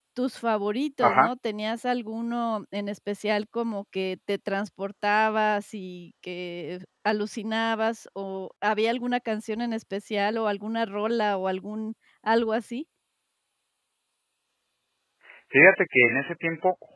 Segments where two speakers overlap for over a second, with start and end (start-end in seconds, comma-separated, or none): none